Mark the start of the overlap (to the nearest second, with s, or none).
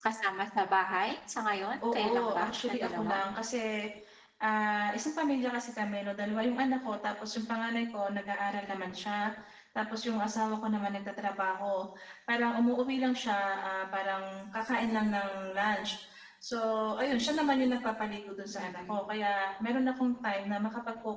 2 s